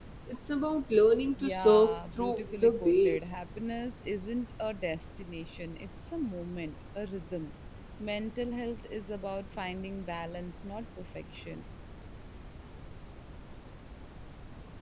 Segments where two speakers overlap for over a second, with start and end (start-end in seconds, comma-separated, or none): 1.4-3.2